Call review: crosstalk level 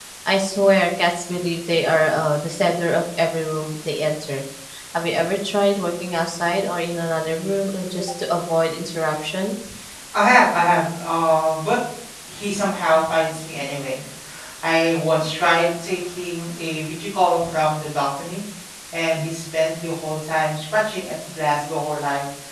none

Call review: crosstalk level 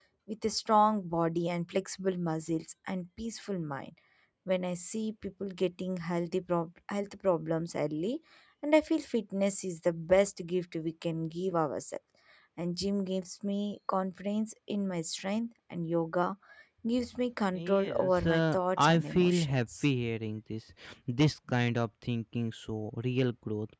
present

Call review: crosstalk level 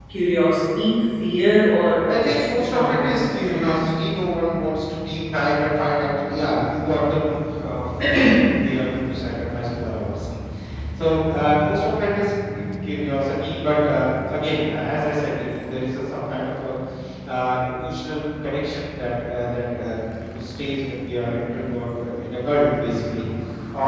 present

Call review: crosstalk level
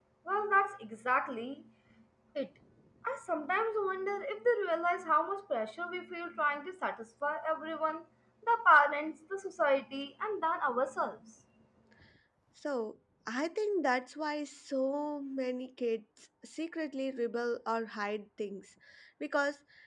none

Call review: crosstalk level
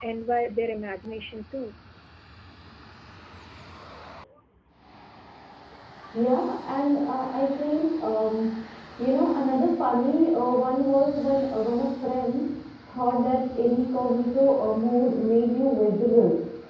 none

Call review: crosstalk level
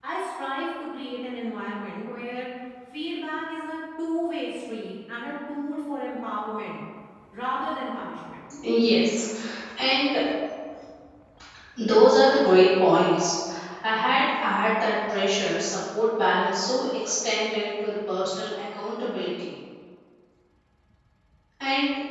none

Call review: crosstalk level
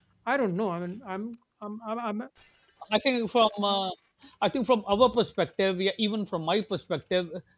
none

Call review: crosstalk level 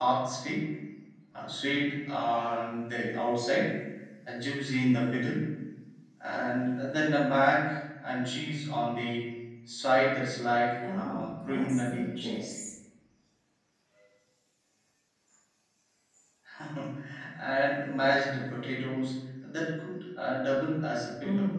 present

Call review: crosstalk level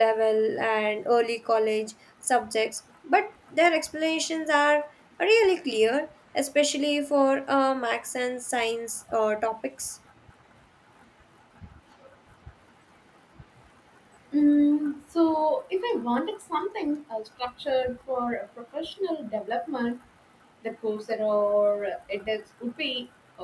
none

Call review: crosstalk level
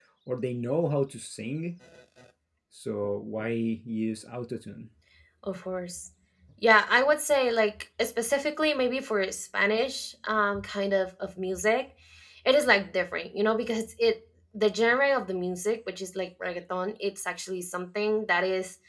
none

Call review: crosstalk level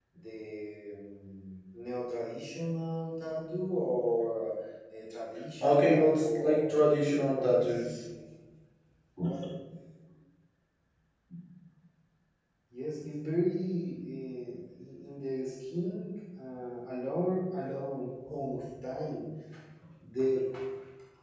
present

